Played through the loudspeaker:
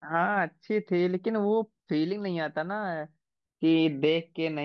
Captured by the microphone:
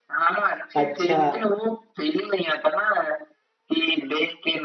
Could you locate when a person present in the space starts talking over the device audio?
0.8 s

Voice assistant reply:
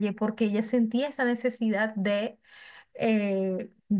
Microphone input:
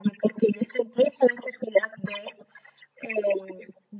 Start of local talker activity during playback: none

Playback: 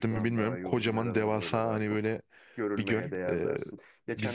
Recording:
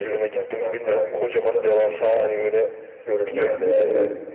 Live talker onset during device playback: 3.3 s

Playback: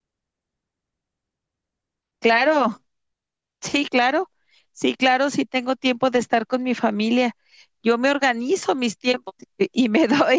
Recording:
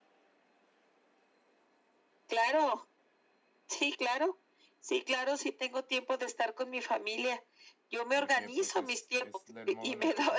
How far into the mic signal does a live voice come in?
8.1 s

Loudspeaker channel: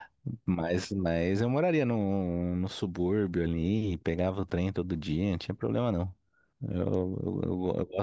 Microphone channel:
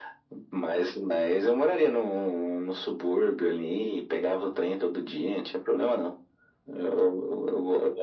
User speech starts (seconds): none

